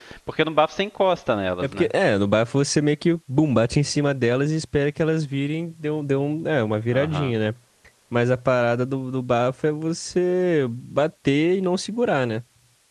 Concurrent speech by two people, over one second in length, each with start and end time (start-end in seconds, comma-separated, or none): none